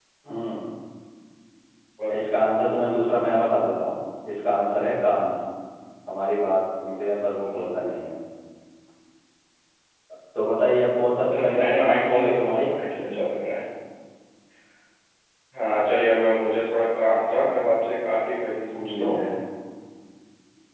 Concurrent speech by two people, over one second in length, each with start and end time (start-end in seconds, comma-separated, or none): 11.3-12.7